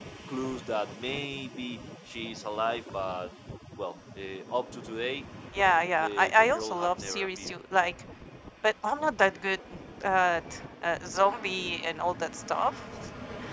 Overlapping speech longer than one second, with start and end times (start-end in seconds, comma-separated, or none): 6.0-7.5